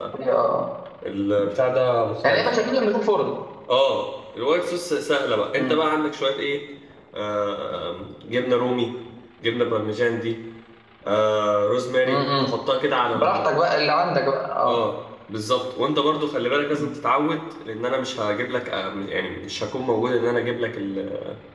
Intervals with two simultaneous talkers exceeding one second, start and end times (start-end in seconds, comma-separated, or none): none